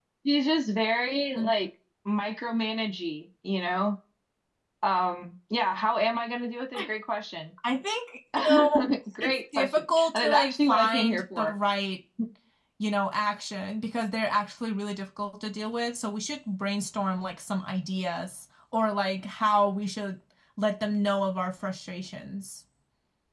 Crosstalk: present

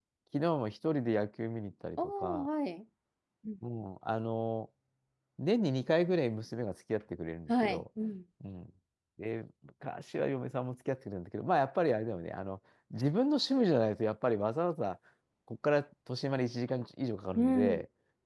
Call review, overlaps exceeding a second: none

